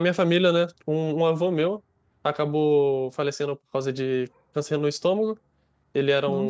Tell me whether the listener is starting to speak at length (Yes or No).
No